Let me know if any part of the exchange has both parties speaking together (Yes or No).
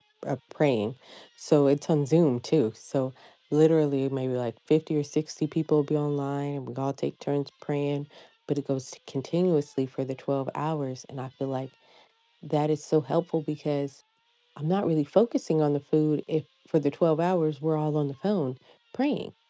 No